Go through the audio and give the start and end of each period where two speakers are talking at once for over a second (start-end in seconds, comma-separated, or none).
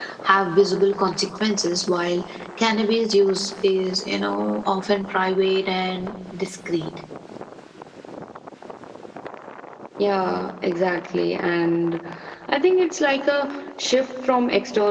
none